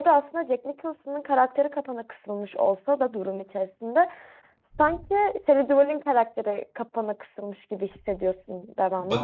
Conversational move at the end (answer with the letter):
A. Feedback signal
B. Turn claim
B